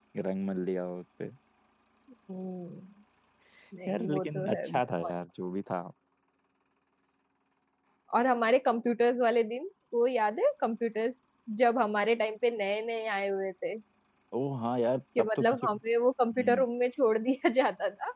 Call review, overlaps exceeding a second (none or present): present